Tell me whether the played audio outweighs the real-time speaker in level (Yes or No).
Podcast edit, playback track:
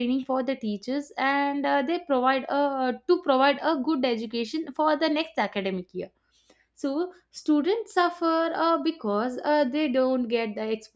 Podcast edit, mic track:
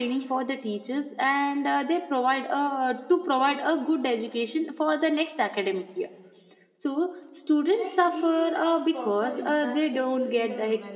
Yes